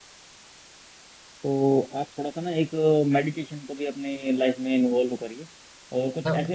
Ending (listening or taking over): listening